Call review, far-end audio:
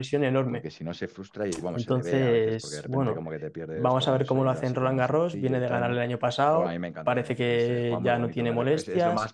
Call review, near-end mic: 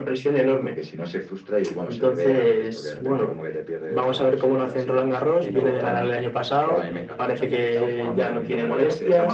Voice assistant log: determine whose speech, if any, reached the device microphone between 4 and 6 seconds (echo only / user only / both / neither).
both